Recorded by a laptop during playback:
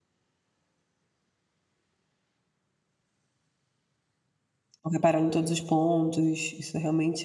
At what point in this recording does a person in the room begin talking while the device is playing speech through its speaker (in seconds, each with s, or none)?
4.8 s